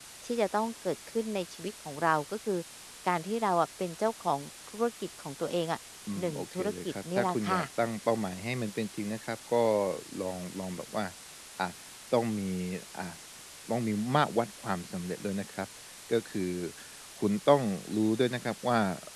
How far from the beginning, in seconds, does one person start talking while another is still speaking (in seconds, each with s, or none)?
6.2 s